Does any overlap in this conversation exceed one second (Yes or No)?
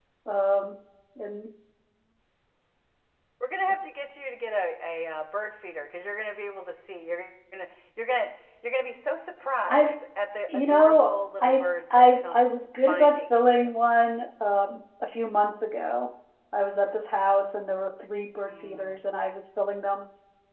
Yes